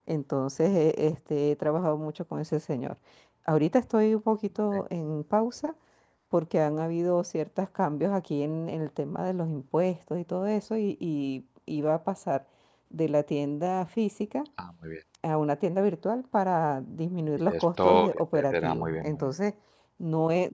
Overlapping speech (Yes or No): Yes